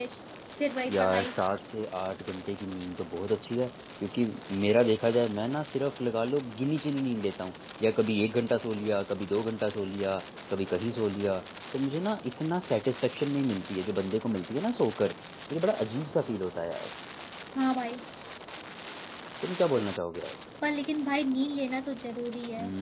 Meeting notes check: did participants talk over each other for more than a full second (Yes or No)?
No